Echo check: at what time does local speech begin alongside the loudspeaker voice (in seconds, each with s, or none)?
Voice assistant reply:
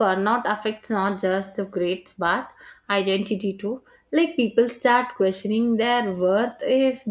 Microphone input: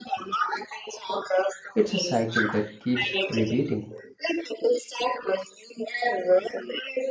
1.7 s